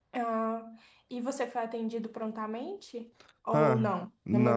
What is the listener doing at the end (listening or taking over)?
taking over